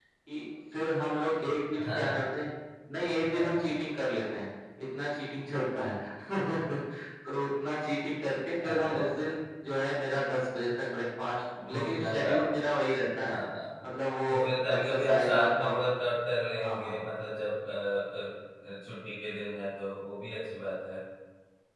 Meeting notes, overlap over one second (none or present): present